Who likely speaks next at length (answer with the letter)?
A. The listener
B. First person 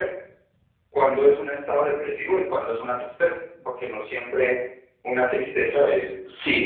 A